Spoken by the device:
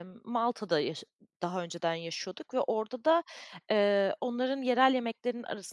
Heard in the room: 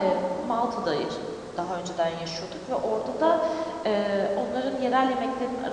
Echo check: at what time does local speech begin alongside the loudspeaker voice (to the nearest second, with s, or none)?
none